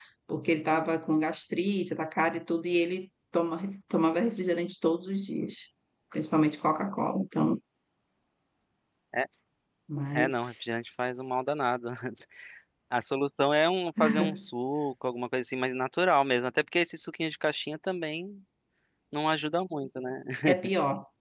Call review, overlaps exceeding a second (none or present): none